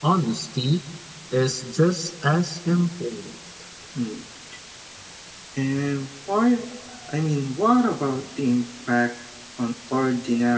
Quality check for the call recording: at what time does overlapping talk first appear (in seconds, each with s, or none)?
none